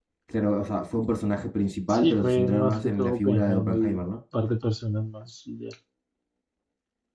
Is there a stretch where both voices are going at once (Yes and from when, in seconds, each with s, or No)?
Yes, from 2.0 s